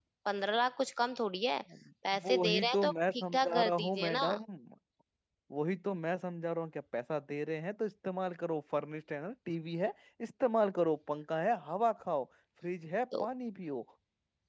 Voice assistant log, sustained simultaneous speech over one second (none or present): present